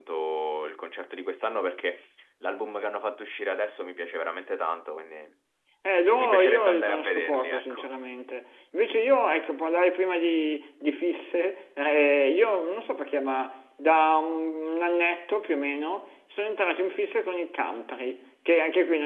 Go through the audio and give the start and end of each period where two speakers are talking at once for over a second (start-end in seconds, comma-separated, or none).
6.2-7.9